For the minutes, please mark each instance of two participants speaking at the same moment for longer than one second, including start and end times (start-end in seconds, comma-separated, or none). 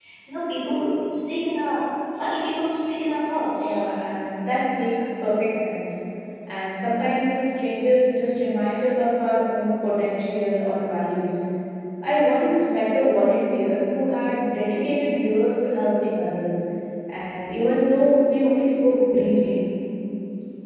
none